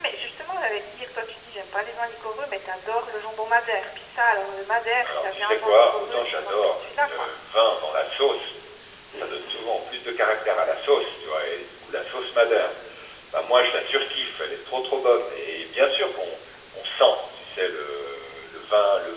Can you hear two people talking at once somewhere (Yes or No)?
Yes